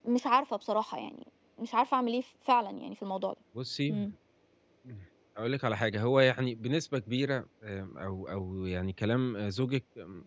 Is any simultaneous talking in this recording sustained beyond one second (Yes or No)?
No